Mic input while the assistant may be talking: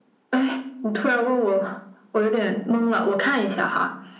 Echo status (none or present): present